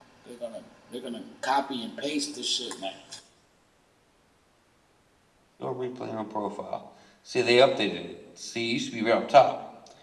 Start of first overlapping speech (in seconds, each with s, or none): none